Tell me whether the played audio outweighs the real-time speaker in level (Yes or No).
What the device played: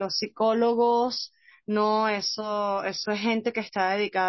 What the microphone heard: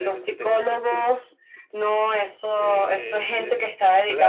Yes